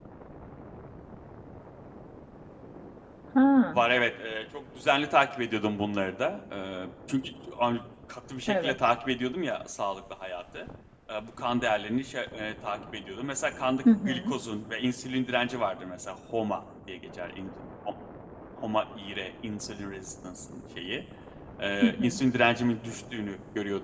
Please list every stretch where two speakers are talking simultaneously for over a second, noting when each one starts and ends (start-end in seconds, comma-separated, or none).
none